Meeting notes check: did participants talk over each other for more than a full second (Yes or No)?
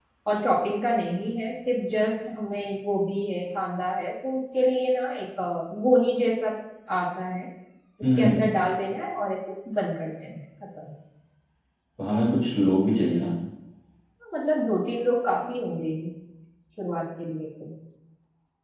No